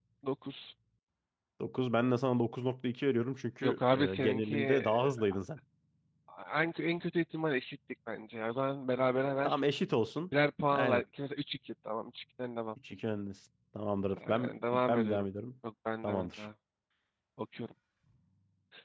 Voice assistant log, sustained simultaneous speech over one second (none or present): present